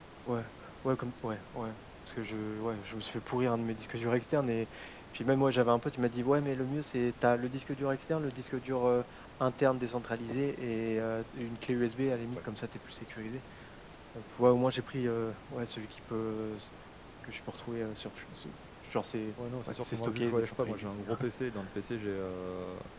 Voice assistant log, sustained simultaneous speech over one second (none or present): present